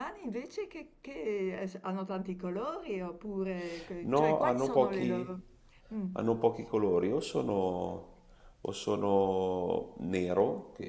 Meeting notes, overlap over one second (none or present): present